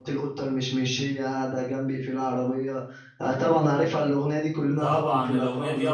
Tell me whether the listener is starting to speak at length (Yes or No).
Yes